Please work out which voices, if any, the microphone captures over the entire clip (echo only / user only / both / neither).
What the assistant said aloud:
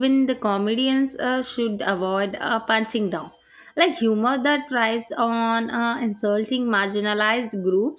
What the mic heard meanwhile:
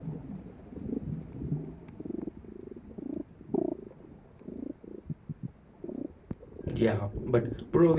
user only